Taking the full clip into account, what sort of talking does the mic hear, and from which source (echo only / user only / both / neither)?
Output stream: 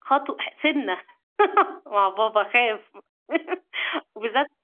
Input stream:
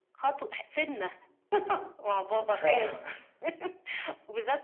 both